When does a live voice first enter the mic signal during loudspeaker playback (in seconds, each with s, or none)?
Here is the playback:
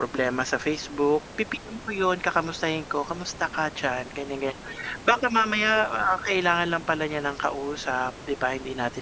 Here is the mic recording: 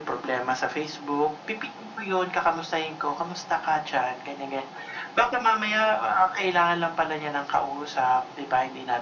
none